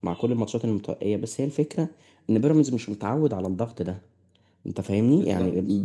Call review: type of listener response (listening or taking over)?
listening